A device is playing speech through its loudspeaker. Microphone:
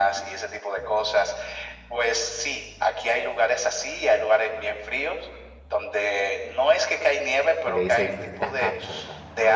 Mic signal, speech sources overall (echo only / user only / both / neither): both